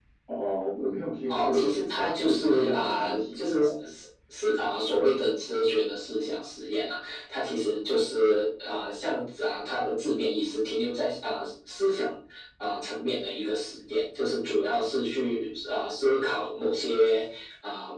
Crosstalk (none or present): present